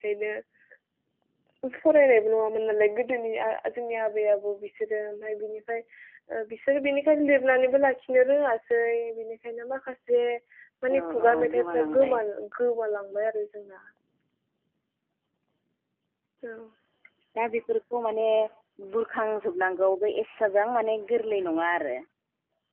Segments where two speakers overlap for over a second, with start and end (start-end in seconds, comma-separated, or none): 10.9-12.1